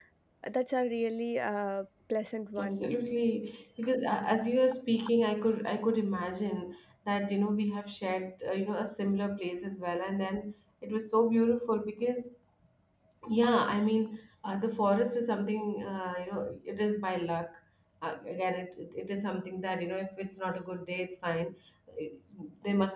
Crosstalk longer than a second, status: none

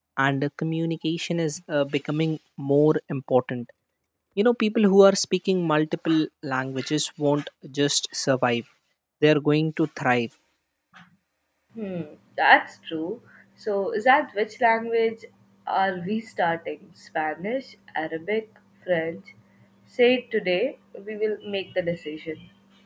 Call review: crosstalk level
none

